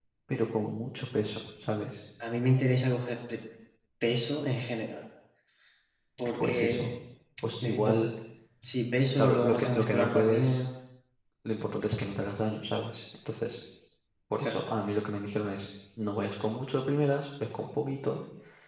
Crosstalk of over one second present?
Yes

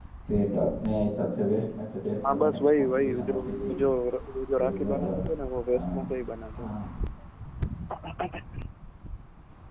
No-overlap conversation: No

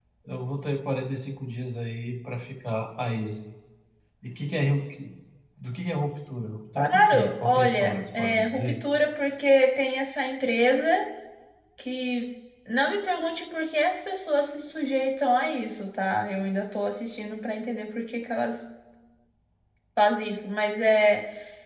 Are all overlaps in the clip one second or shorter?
No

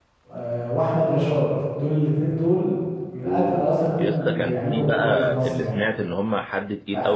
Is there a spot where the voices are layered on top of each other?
Yes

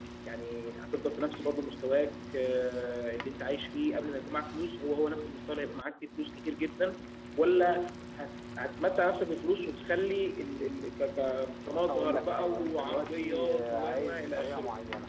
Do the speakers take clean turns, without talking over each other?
No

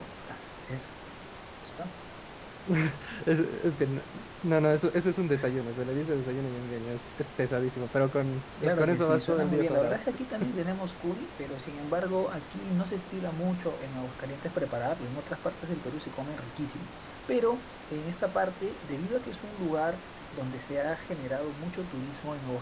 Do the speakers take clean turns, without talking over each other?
No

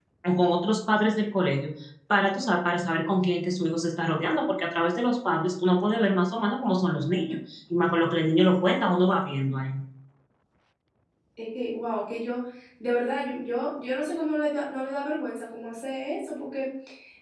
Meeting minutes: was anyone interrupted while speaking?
No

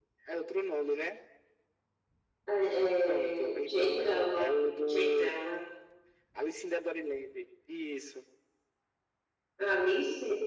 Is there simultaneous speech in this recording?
Yes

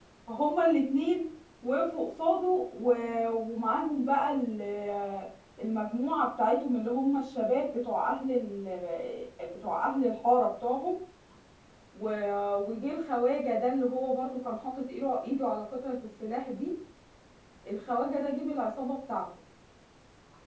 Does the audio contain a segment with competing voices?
No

